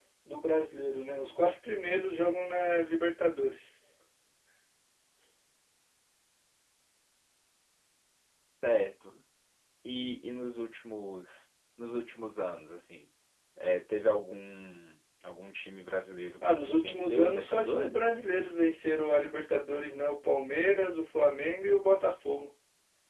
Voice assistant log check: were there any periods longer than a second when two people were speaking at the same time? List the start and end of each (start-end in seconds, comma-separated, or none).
16.4-18.1